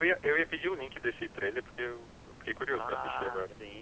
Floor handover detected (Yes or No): Yes